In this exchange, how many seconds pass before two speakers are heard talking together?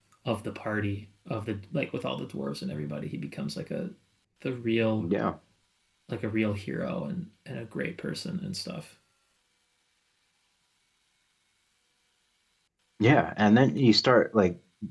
none

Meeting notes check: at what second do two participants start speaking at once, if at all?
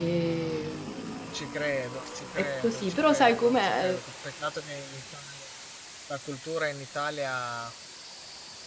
2.4 s

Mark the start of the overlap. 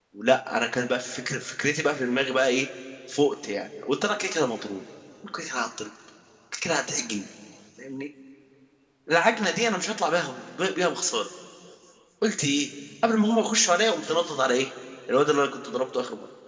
none

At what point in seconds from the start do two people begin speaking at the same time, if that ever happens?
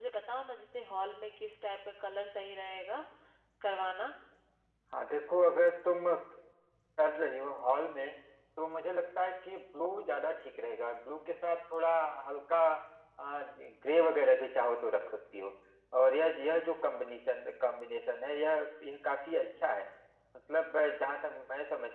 none

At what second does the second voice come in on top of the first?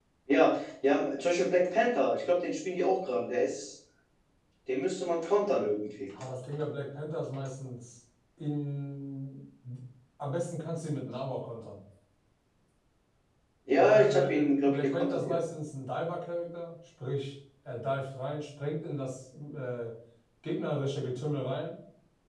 13.8 s

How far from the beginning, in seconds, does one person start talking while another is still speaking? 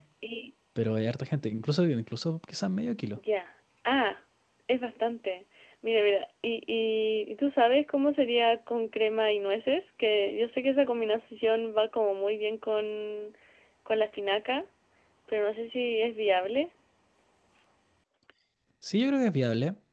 none

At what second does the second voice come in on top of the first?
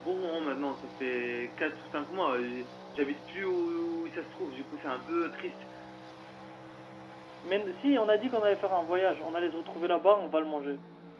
none

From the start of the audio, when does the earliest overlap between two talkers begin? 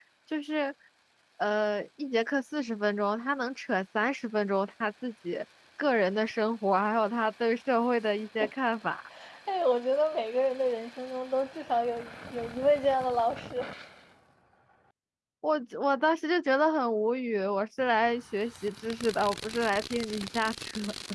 none

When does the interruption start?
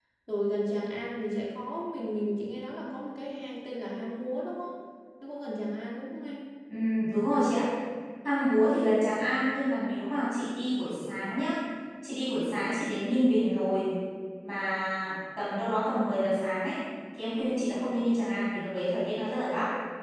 none

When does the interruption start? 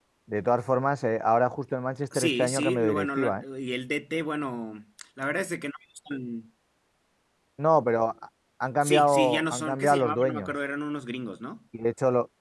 2.1 s

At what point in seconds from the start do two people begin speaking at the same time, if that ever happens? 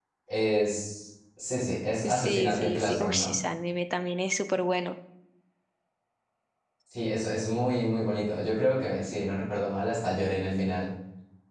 2.0 s

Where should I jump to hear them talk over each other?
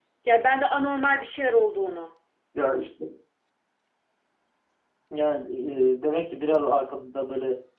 none

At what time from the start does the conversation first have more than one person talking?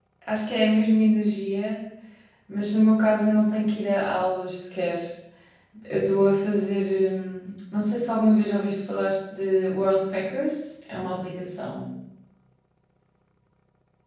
none

